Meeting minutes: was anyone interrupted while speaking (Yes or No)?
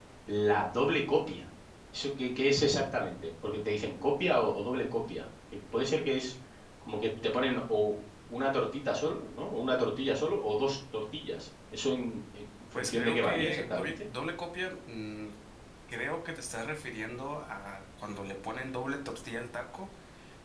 Yes